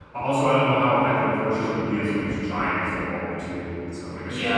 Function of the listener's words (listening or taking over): taking over